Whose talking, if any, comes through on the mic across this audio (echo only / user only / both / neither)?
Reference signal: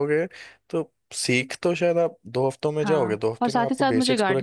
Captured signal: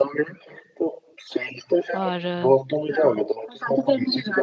both